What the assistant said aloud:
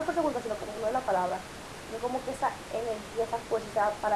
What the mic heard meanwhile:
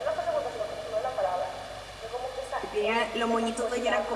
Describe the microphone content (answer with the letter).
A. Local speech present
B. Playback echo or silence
A